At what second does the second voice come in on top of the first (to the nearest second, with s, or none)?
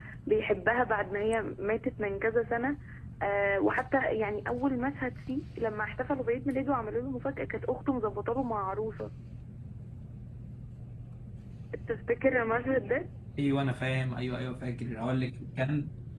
none